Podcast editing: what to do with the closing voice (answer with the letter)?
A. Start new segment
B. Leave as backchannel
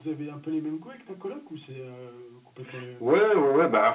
A